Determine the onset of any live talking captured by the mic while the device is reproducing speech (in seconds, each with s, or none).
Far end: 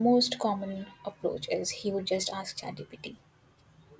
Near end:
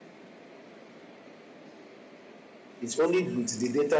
2.8 s